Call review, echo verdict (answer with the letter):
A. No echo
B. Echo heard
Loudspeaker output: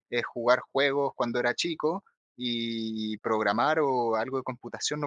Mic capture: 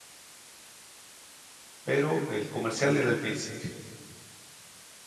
A